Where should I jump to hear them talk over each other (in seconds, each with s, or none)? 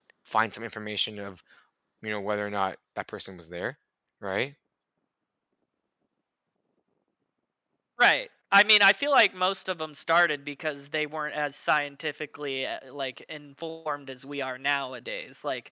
none